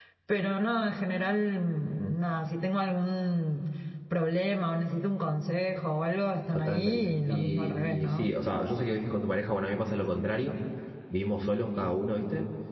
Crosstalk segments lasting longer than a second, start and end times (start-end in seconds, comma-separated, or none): 6.5-8.4